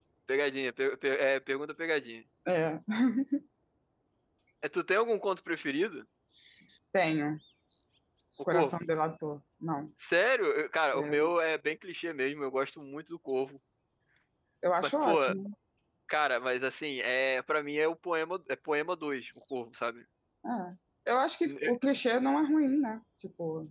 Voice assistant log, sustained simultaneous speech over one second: none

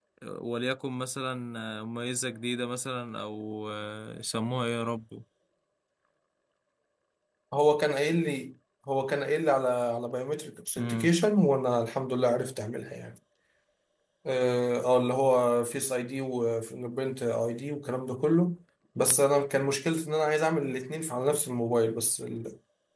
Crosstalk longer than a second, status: none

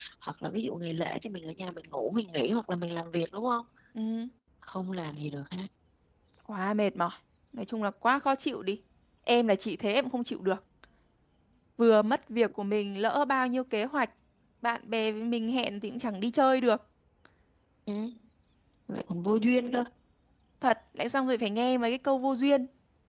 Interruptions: none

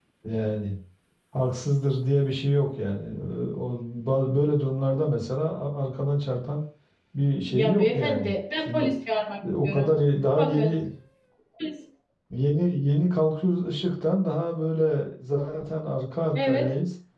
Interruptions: present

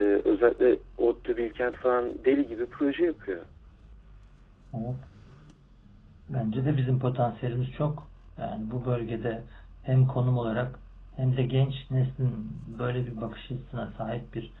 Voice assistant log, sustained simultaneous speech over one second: none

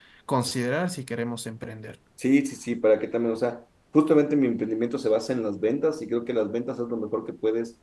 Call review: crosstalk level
none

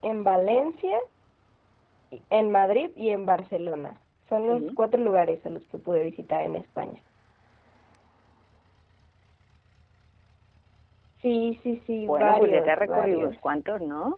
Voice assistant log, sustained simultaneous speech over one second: present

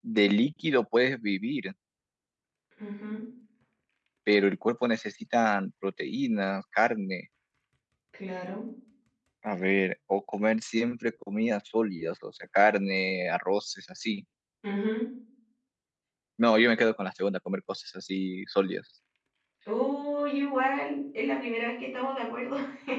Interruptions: none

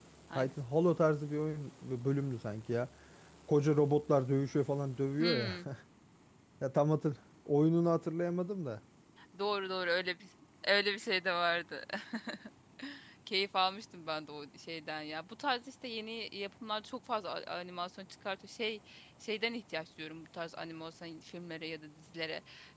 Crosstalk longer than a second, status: none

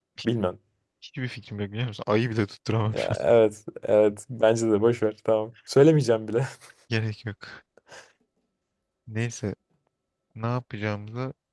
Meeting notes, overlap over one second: none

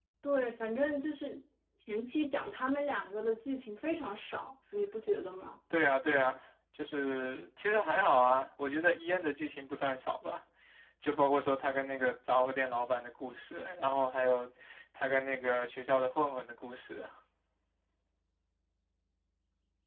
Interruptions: none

